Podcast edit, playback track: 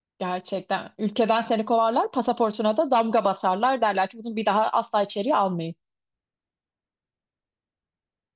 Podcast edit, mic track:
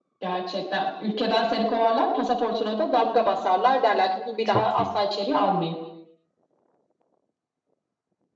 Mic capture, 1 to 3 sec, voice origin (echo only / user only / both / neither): echo only